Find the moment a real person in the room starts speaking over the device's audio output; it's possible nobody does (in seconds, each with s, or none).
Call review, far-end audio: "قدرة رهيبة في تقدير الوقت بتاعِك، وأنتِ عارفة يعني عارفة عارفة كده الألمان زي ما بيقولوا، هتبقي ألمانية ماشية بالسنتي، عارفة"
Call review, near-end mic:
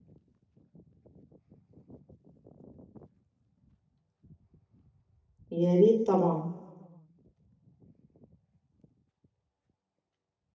5.5 s